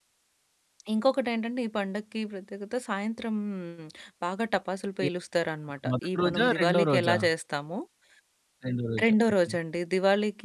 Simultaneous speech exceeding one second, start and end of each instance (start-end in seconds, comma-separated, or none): 5.9-7.2